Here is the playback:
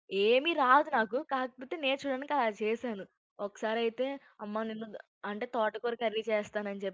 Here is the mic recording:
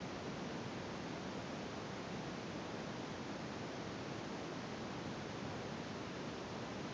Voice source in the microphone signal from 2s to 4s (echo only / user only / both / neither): neither